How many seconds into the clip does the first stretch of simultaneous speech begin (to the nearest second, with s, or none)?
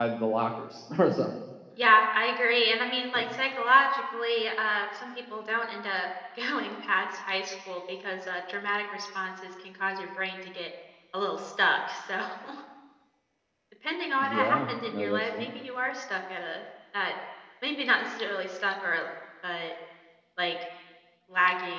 14 s